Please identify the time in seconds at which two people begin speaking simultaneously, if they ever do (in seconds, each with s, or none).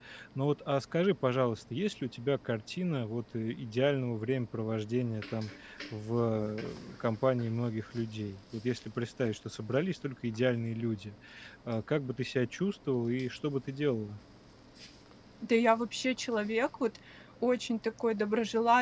none